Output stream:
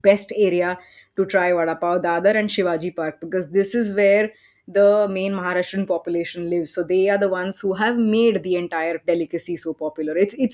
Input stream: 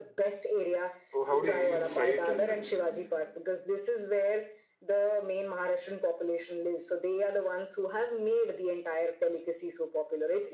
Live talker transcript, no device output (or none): Oh, how do you, you'll fry it and then